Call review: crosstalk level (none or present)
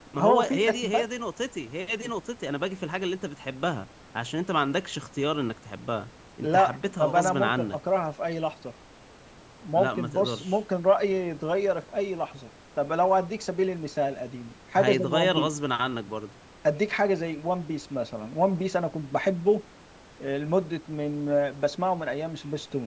present